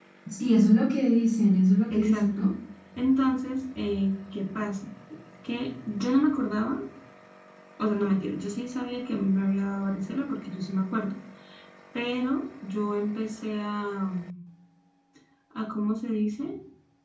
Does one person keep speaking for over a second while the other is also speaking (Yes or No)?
No